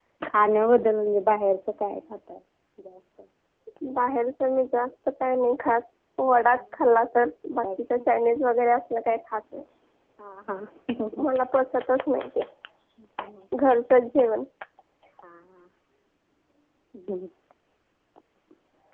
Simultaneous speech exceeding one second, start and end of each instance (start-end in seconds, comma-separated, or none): none